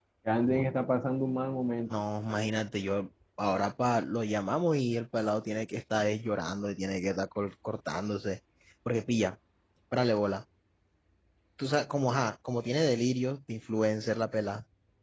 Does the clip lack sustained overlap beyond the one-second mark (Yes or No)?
Yes